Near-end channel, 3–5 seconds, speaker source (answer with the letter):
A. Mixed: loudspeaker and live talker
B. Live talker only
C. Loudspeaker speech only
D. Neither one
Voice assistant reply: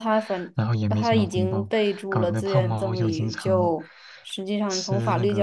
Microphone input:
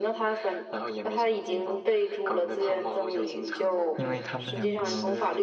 A